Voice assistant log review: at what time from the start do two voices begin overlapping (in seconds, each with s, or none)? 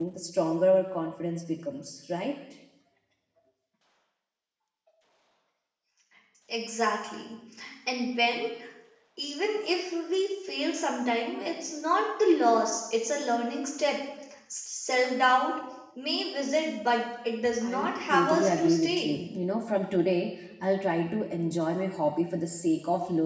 17.6 s